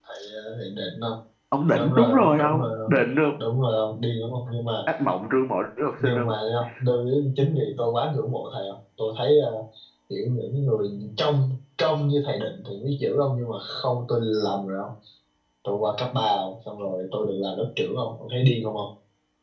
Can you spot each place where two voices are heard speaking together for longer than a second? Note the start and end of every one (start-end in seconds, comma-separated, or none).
1.7-2.9